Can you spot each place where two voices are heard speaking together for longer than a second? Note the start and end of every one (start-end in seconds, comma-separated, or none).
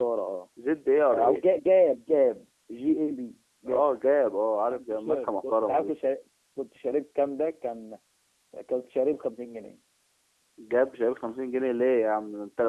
4.7-6.0